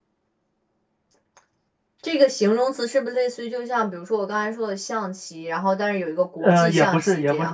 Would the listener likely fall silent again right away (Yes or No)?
No